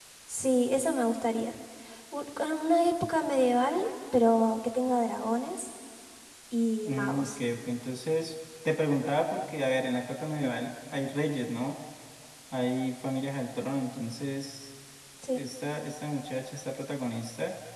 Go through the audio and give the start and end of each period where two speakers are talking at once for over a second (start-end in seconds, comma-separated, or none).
none